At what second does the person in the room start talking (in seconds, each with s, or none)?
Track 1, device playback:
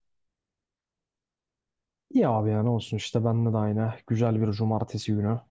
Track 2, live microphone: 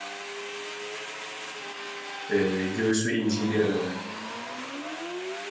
2.3 s